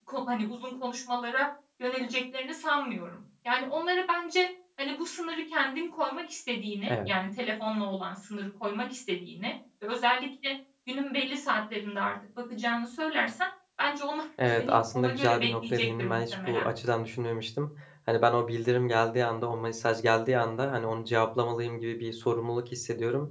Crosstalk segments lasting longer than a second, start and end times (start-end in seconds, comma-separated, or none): 14.6-16.7